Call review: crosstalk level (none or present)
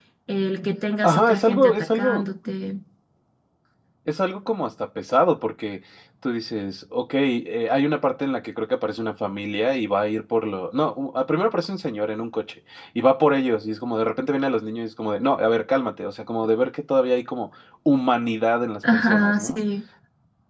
present